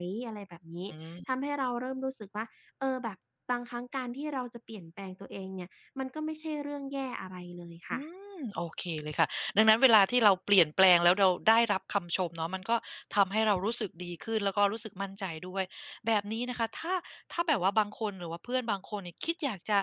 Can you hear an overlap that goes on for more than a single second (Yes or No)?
No